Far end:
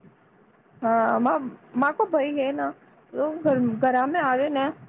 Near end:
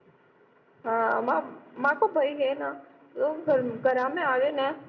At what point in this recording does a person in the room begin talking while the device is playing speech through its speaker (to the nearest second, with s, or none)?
none